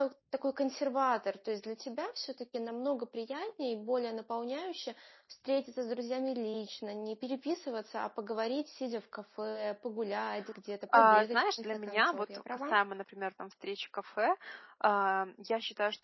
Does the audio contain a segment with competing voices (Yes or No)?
Yes